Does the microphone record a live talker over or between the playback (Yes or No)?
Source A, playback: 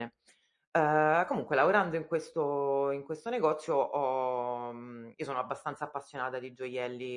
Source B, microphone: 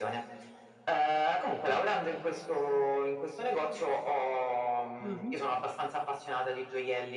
Yes